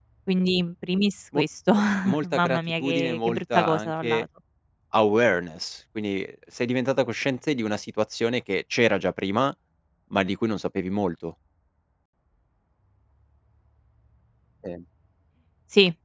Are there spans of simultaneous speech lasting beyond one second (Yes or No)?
Yes